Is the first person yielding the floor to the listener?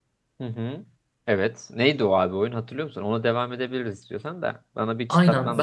Yes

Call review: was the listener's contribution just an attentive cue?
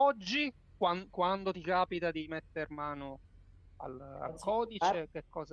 Yes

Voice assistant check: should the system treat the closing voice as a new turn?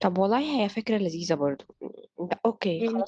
Yes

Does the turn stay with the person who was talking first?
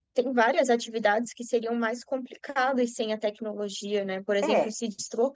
Yes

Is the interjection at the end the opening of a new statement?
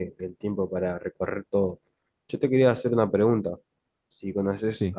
No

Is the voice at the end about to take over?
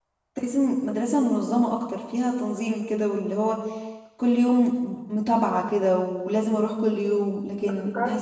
No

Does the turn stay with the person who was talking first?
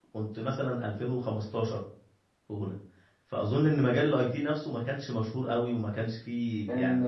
No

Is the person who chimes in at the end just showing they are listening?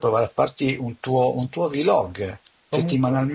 Yes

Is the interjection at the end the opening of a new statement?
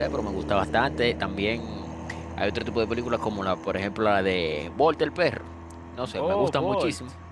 No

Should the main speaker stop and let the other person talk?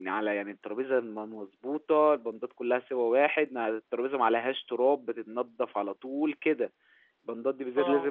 No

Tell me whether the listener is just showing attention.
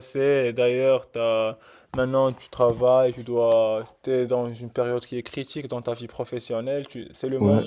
Yes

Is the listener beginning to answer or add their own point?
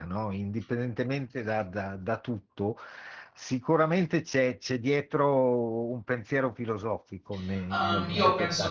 Yes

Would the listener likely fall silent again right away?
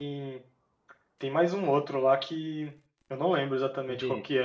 No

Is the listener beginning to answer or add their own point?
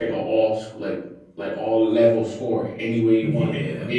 No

